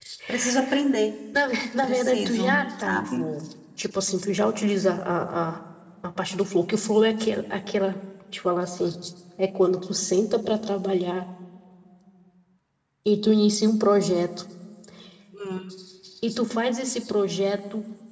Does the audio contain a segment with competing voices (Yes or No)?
Yes